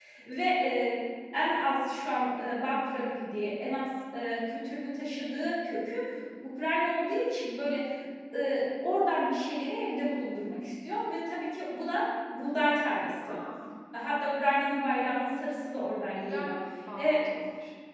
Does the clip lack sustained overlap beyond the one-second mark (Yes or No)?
Yes